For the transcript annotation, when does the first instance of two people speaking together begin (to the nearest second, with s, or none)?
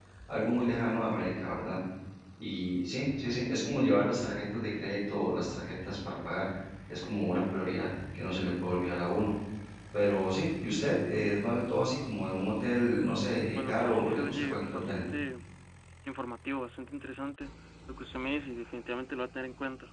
14 s